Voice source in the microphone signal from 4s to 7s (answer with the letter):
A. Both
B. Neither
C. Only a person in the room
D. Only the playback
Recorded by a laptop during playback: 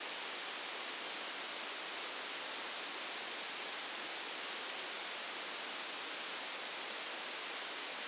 B